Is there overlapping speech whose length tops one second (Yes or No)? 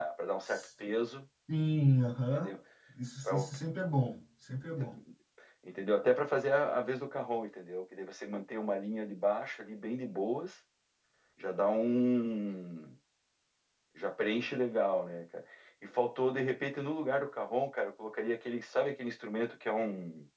No